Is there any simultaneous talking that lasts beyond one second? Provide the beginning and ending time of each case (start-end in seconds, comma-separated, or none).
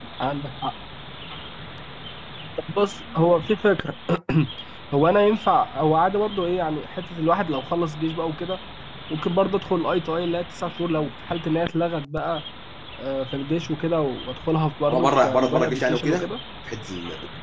14.9-16.3